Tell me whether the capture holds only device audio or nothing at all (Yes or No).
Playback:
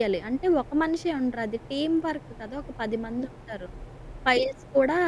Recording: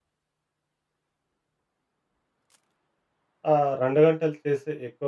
No